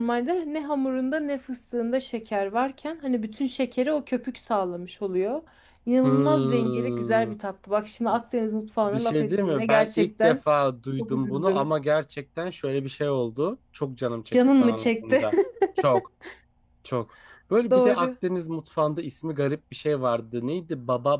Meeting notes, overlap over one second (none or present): present